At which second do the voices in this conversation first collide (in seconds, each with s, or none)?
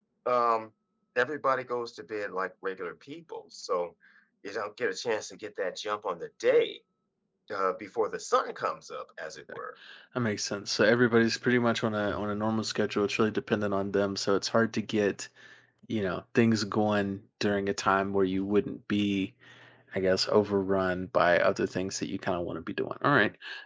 none